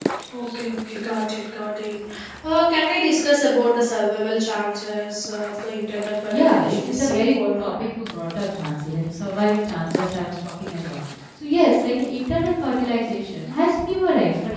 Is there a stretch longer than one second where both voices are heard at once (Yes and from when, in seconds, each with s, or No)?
Yes, from 6.3 s